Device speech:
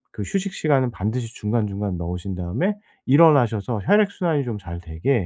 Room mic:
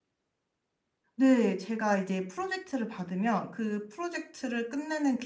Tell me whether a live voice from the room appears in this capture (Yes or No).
Yes